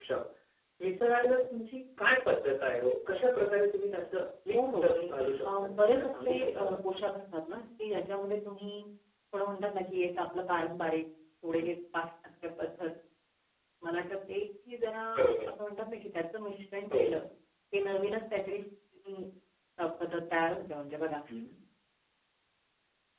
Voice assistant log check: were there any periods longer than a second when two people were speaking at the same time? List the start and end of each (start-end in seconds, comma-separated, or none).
5.5-6.8